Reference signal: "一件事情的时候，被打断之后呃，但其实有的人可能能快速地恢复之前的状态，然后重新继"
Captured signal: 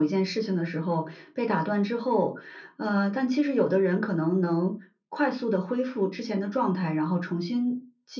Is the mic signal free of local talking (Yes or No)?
Yes